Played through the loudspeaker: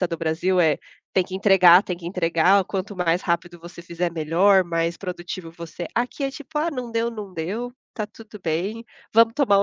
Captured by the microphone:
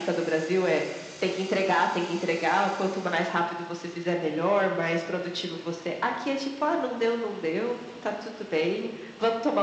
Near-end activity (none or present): none